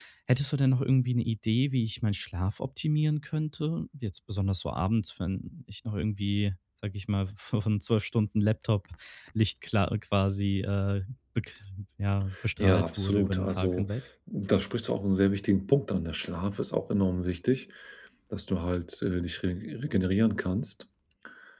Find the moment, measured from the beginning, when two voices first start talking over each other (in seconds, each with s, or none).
12.3 s